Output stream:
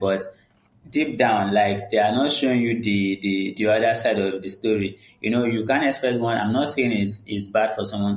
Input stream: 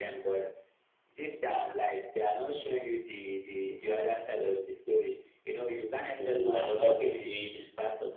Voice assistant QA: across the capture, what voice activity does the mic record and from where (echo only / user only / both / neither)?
both